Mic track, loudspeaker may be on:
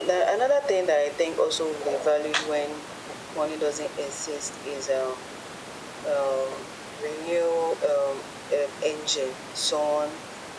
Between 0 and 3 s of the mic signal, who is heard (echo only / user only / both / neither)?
echo only